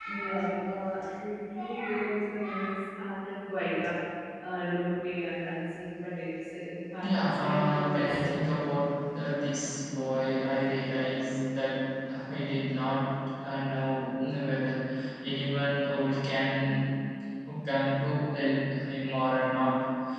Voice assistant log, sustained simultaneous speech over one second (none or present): present